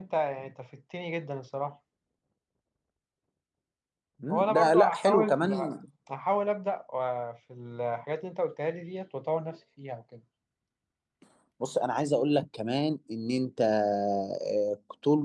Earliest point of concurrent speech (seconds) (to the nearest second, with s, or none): 4 s